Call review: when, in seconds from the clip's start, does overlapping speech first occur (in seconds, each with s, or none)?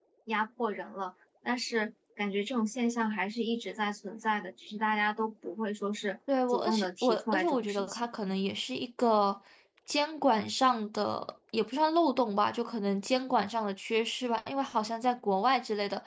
6.5 s